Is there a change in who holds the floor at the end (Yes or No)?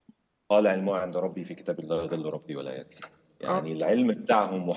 No